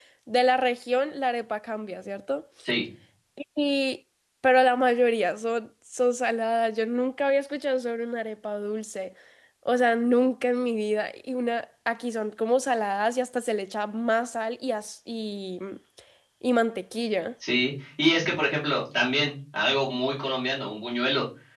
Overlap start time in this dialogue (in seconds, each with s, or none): none